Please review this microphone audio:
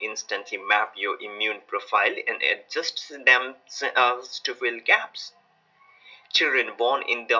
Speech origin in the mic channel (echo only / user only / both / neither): echo only